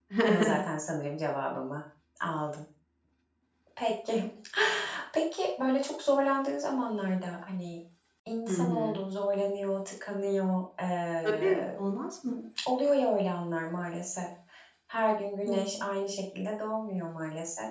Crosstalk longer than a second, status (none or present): none